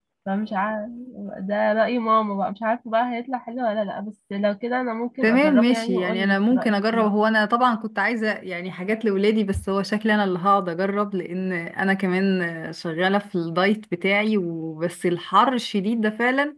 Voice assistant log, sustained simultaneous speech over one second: present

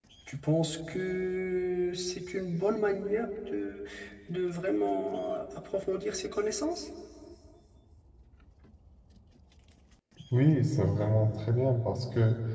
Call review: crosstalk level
none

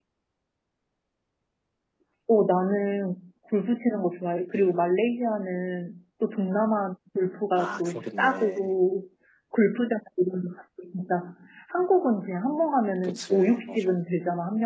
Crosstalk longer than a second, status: present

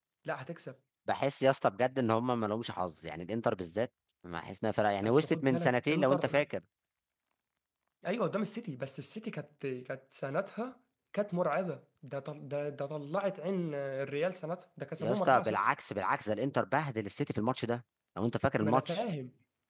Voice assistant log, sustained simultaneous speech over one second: present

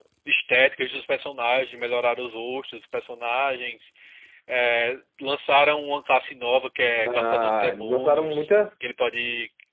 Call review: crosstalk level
present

